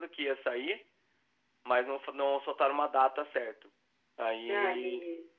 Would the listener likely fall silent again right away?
Yes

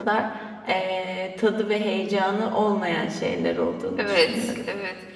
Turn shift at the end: Yes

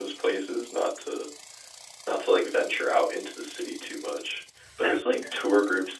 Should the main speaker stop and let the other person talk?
No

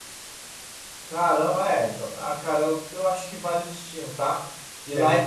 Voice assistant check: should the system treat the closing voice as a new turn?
No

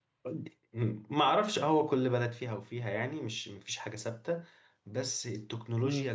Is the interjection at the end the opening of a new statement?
No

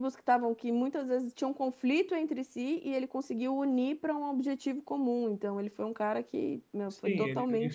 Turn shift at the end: Yes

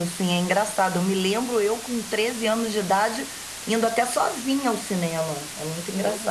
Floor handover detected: No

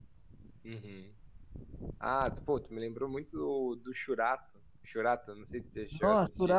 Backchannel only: No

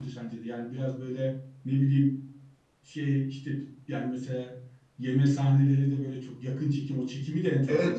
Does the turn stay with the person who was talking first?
No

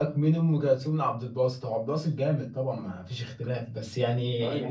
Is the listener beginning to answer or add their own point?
No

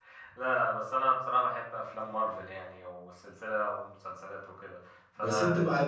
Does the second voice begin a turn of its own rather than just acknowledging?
Yes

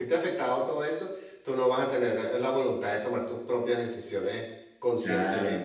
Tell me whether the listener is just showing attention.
No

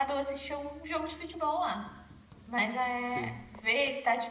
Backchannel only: Yes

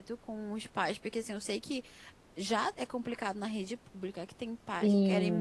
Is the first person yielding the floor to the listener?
No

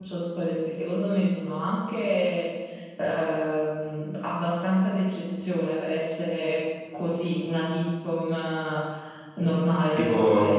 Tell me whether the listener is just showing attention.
No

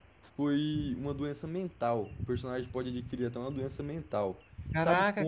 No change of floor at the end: No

